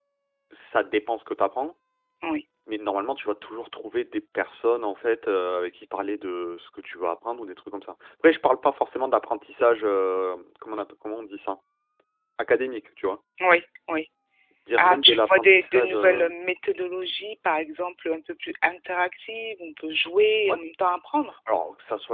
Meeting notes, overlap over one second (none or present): present